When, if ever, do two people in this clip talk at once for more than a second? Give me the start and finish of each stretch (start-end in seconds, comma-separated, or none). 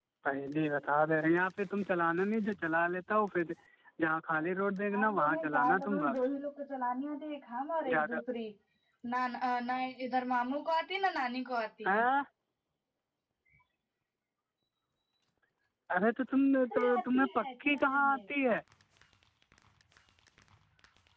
4.9-6.2, 16.7-18.2